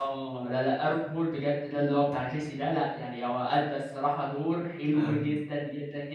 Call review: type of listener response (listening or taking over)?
listening